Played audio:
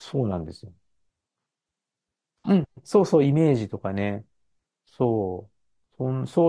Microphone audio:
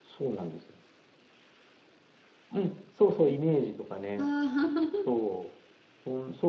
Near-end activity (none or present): present